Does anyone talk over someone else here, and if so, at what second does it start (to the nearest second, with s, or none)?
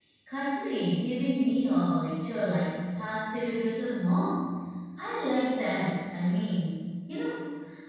none